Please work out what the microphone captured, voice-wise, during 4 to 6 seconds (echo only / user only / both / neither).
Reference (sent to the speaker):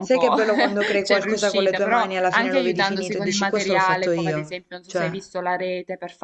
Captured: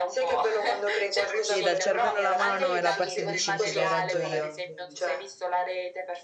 both